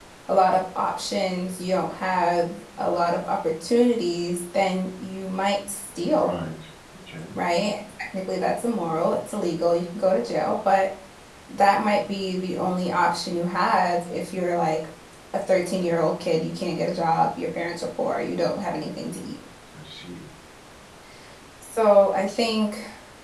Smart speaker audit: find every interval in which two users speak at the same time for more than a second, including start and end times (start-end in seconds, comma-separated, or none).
none